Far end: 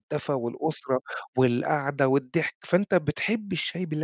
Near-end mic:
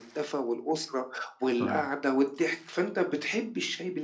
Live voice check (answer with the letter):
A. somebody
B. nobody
A